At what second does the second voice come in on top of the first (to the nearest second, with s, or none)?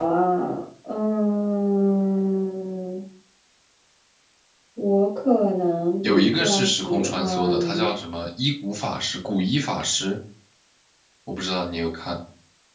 6 s